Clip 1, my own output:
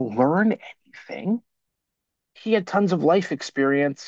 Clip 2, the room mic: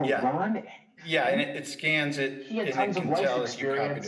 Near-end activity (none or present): present